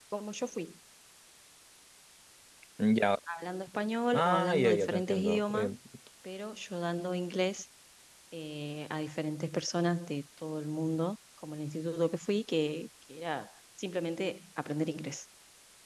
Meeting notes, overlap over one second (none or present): present